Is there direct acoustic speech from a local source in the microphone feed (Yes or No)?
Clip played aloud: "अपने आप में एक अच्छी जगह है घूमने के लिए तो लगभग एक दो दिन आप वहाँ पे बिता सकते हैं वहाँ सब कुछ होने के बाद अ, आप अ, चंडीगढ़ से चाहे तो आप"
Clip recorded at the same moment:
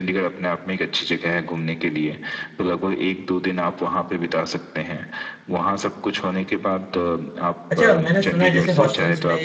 Yes